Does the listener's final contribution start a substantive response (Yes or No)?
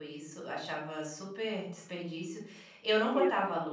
No